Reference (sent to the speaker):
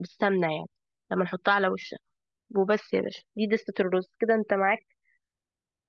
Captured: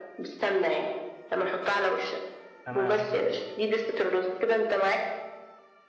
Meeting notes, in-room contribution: present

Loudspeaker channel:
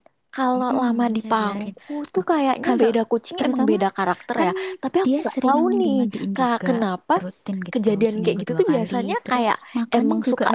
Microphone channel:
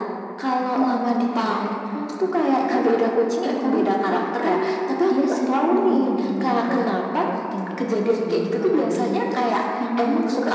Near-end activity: none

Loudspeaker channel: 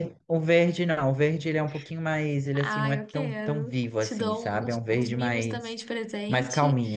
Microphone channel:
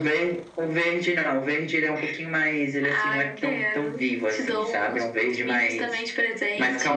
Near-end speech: none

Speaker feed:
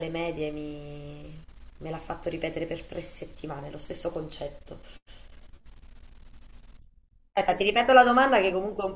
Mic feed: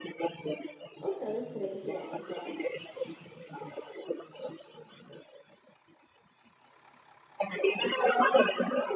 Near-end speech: present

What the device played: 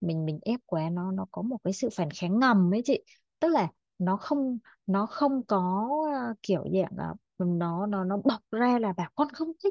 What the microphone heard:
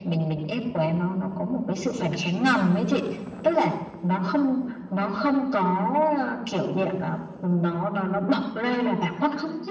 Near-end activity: none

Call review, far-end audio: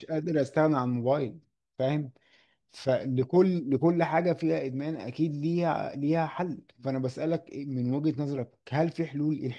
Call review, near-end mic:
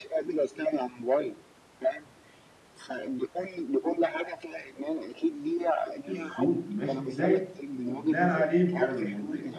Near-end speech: present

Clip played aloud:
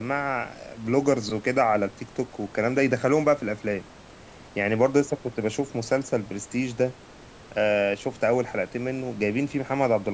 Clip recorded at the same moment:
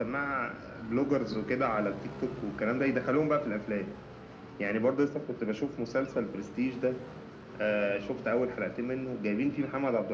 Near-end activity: none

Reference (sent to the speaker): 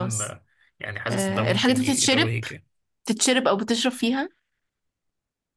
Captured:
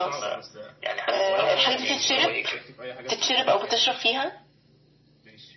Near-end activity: present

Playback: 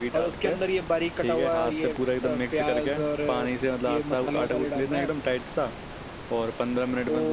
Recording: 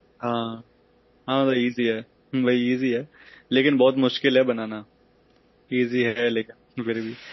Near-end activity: present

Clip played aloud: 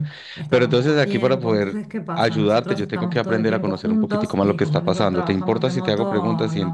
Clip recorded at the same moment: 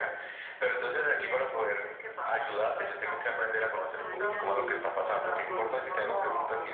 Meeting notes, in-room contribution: present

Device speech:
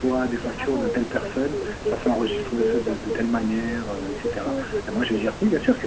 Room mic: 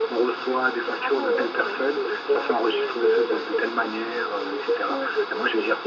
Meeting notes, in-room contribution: present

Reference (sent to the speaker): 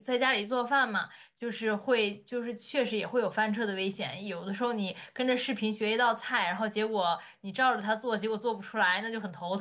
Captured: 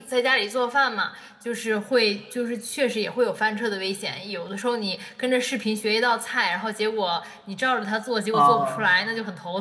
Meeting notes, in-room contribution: present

